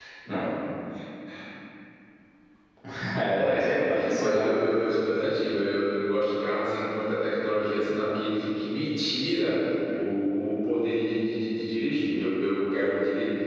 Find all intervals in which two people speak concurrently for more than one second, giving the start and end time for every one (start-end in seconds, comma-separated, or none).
3.3-4.5